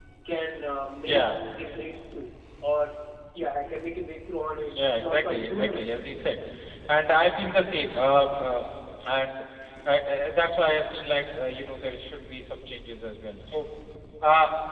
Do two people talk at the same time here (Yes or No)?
Yes